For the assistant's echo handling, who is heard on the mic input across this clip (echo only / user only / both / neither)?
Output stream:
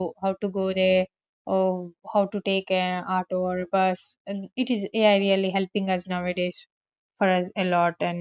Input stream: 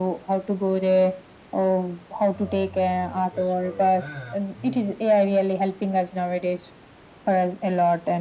both